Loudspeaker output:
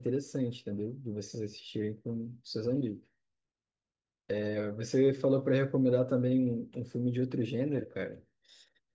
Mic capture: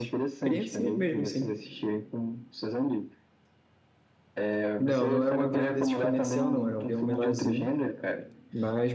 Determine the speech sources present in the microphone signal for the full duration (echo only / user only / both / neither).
both